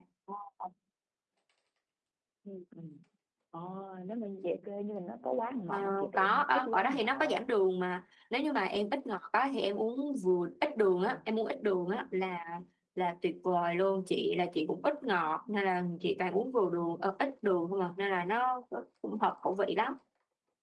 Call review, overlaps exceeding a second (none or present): present